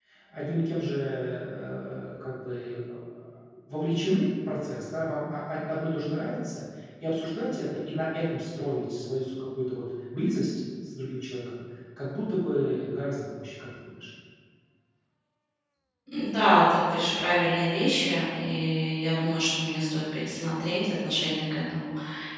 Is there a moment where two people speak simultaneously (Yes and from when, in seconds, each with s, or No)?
No